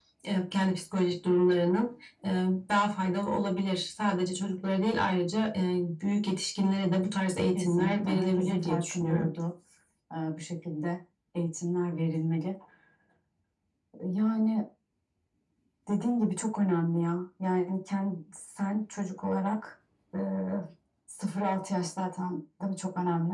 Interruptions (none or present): present